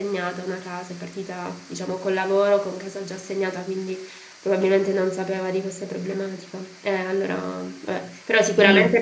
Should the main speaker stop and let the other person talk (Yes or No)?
No